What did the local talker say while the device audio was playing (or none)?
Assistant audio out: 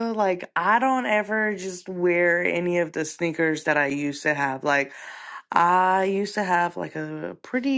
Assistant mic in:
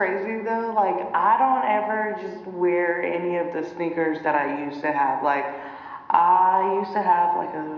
none